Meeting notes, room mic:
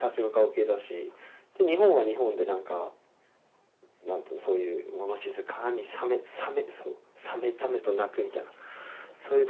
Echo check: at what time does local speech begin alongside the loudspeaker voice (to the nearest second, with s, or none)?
none